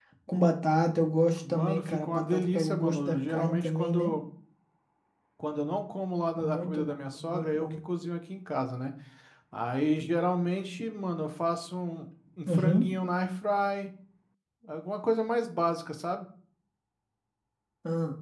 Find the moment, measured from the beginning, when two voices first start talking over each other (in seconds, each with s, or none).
1.5 s